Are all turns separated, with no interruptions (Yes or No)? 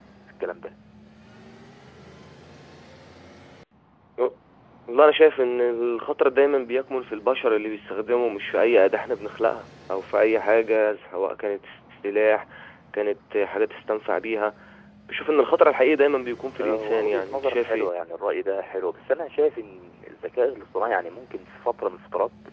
No